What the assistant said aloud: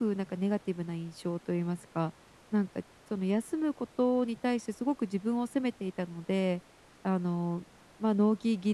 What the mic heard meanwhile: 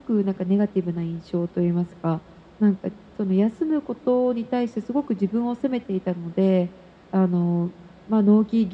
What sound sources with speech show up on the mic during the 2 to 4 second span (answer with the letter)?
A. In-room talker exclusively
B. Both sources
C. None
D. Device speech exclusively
D